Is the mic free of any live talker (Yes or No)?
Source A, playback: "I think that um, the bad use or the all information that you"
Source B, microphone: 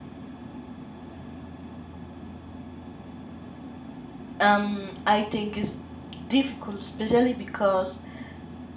No